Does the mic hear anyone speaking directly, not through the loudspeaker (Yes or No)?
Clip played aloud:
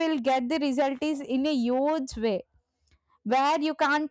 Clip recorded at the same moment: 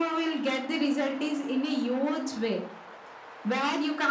No